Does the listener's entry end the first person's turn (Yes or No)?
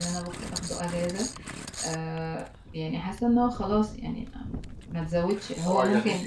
Yes